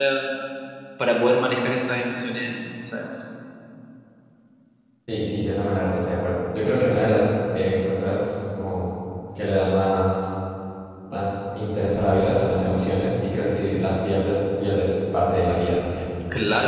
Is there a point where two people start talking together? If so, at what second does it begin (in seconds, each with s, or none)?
none